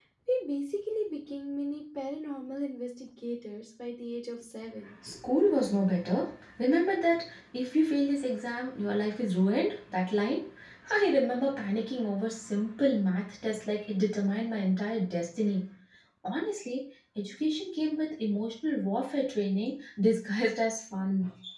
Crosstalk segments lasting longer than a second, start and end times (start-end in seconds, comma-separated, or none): none